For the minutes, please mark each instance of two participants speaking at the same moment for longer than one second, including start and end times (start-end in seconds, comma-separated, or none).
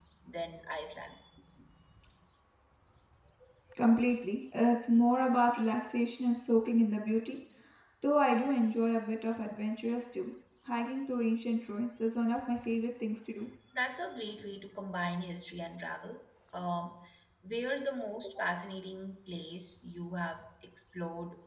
none